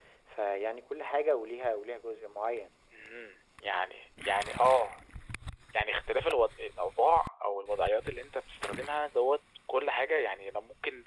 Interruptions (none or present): none